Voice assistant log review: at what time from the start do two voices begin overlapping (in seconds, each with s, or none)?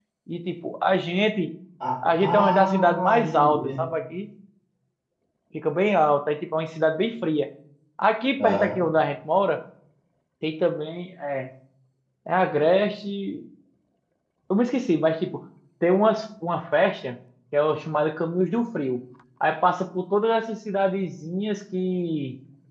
2.2 s